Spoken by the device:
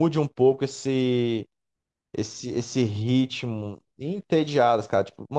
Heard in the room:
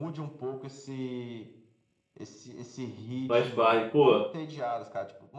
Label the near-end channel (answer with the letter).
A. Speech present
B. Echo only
A